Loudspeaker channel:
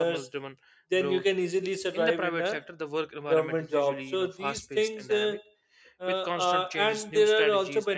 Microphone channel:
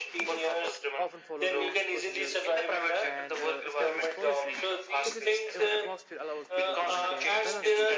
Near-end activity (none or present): present